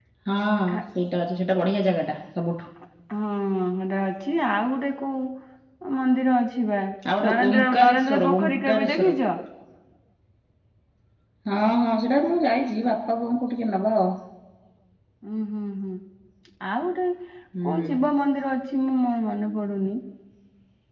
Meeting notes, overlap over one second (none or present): present